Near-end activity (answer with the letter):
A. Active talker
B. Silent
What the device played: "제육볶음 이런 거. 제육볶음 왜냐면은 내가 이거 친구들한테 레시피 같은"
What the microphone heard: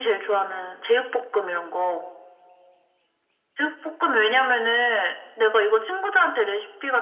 B